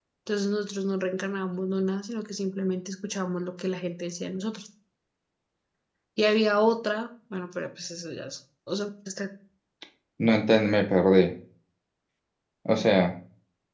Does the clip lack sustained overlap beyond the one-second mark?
Yes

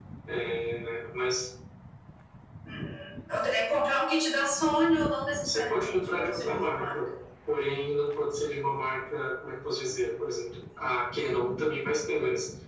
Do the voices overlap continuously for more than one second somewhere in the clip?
Yes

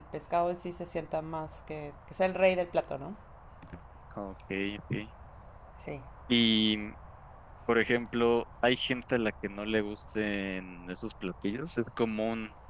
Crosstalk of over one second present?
No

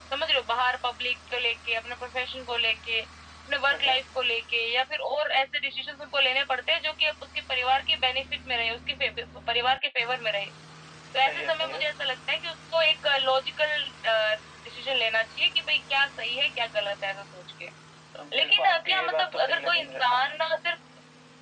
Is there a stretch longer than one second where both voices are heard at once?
Yes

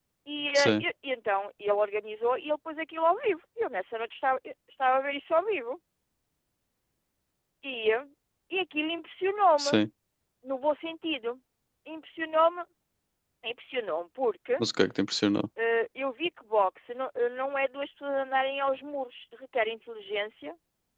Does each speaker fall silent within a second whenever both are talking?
Yes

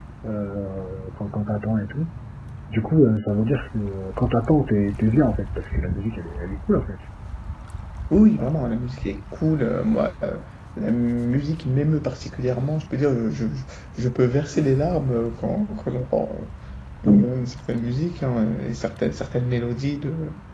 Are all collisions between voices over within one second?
Yes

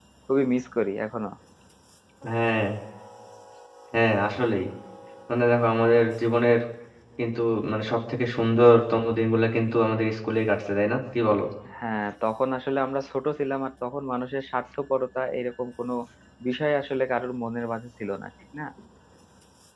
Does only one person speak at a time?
Yes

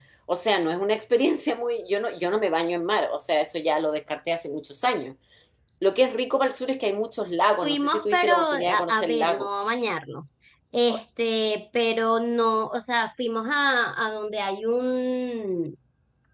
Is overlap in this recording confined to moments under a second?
No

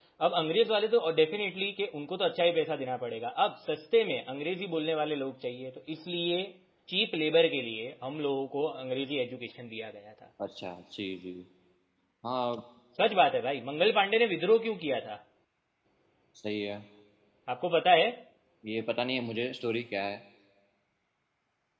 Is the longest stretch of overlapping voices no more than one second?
Yes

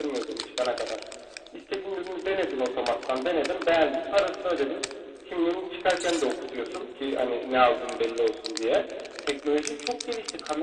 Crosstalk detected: No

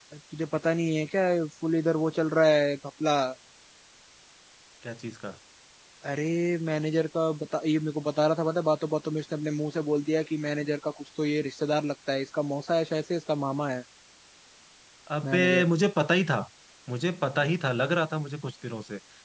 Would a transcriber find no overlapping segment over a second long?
Yes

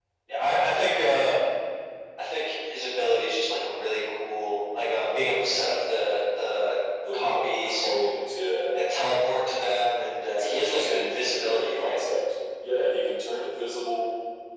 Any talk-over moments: Yes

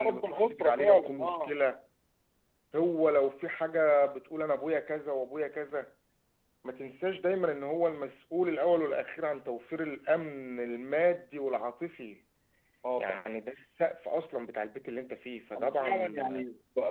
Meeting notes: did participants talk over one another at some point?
Yes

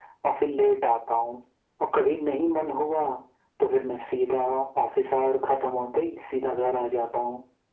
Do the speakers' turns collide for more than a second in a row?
No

